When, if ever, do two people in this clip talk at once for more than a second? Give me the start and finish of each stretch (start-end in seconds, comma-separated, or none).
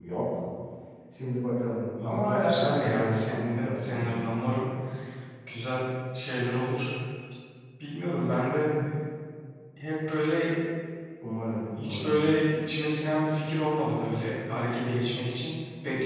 2.0-4.2